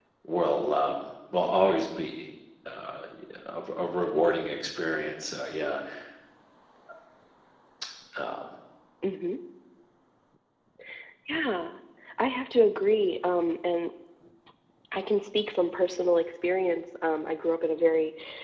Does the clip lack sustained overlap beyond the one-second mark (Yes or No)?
Yes